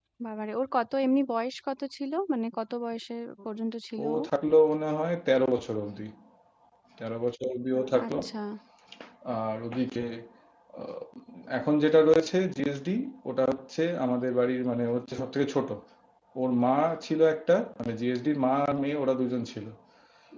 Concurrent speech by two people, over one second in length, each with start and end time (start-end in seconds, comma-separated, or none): none